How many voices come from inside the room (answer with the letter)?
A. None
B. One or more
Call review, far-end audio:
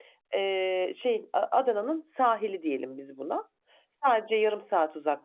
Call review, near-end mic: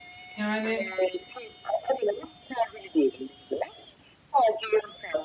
B